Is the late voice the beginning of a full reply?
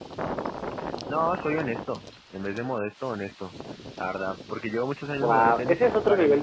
Yes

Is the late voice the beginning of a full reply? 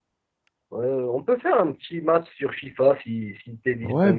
Yes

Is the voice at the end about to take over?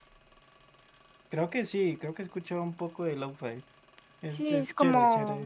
Yes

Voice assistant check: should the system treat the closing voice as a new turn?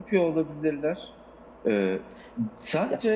No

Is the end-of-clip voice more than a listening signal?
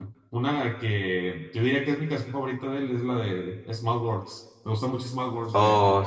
Yes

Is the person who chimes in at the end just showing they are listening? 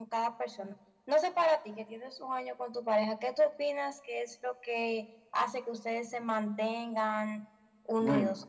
No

